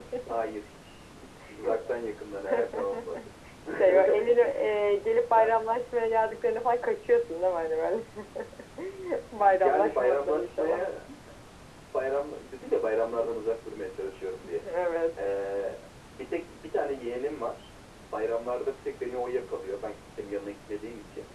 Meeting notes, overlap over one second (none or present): present